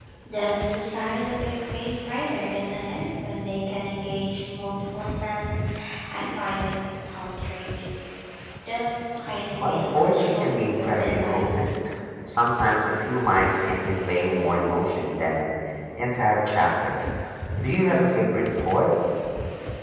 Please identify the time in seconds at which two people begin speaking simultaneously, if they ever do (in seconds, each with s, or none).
9.6 s